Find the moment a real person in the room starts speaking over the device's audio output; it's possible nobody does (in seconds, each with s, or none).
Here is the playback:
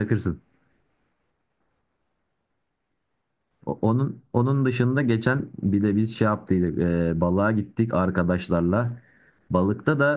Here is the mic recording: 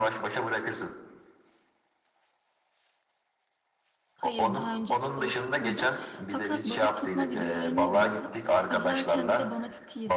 4.2 s